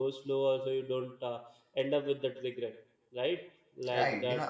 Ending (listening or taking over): taking over